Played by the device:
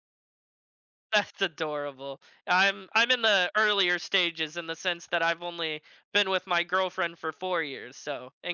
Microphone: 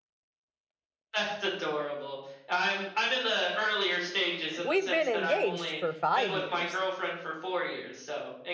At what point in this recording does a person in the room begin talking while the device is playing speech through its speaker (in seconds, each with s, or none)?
4.6 s